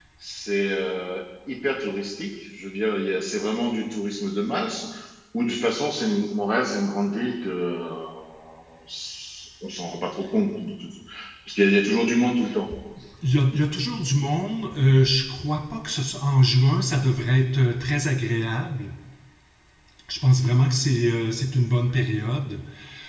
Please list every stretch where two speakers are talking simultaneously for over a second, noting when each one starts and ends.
none

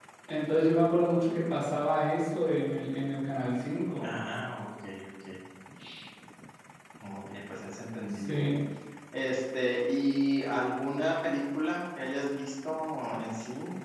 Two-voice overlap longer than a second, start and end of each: none

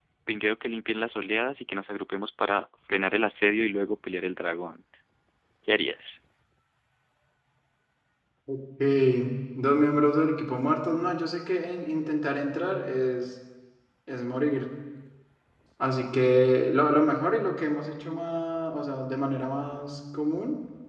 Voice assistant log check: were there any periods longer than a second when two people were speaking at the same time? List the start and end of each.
none

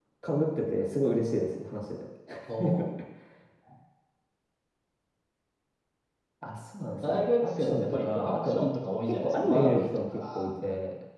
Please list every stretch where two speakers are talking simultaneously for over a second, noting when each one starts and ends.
7.0-8.6, 9.0-10.5

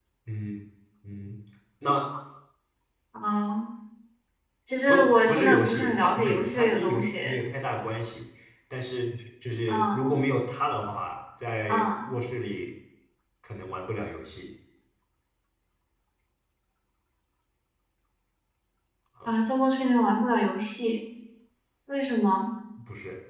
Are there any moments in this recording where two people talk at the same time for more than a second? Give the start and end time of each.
4.9-7.4

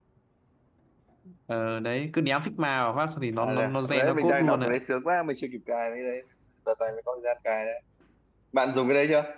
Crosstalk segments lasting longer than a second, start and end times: 3.4-4.7

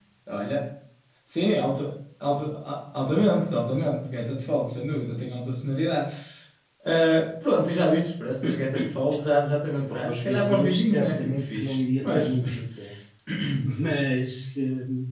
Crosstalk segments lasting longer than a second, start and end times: 9.8-12.4

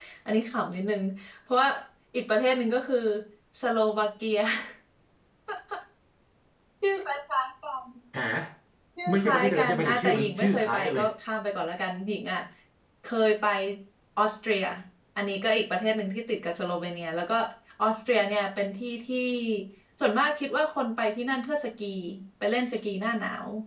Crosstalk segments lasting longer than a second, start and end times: 9.1-11.0

